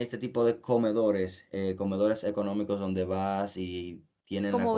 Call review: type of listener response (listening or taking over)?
taking over